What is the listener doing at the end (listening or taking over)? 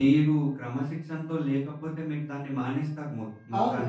taking over